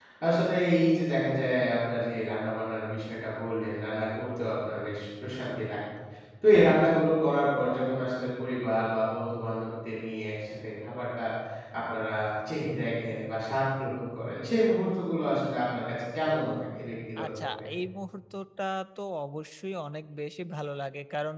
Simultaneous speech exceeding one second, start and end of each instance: none

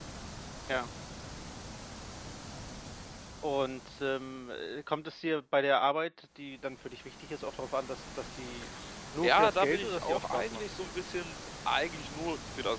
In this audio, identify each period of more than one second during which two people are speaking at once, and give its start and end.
9.2-10.6

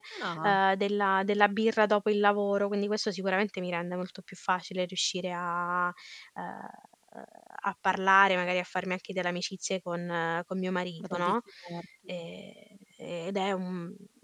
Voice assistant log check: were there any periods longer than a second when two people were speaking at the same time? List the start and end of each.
none

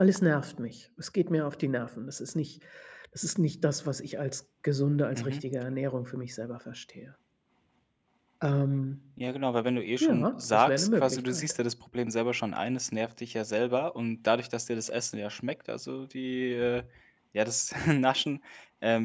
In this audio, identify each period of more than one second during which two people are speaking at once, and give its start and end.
10.0-11.5

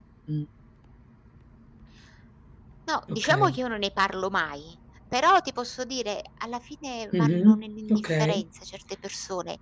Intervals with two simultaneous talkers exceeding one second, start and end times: 7.1-8.4

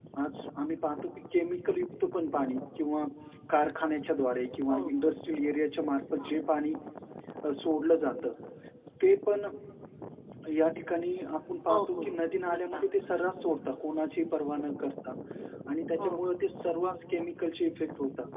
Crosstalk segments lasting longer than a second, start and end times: none

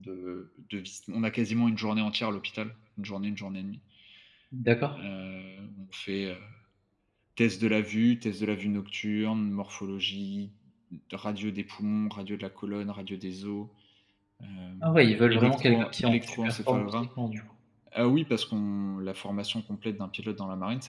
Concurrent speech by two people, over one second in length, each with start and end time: 15.3-16.8

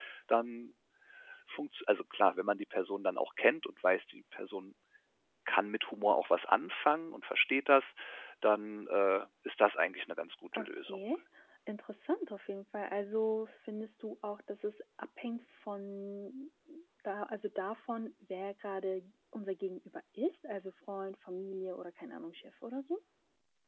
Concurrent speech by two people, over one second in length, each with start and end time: none

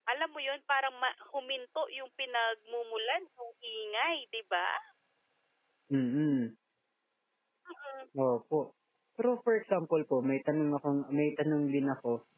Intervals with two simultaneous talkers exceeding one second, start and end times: none

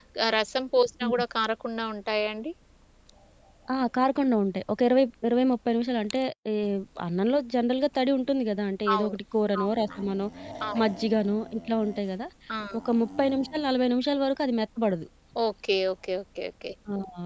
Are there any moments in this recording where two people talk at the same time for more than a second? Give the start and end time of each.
none

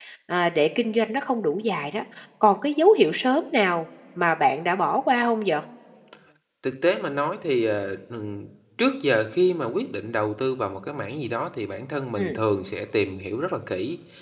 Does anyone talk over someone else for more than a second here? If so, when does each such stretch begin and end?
none

